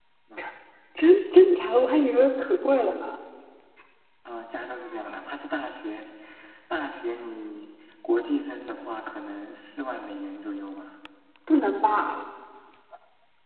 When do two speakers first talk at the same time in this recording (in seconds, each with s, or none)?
none